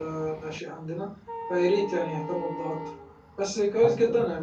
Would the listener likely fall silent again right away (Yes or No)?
Yes